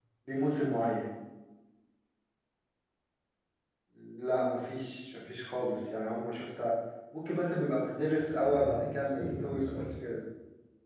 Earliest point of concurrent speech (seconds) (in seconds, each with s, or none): 8.2 s